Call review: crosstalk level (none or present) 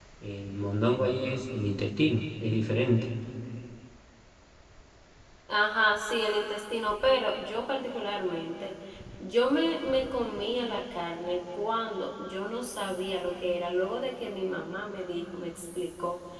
none